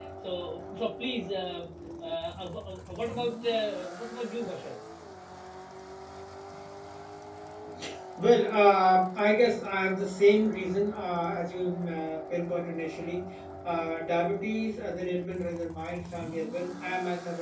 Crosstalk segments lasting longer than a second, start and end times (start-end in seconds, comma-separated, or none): none